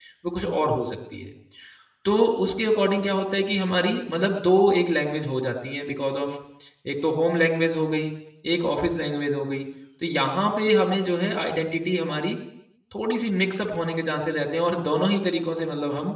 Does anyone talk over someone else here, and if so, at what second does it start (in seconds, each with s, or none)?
none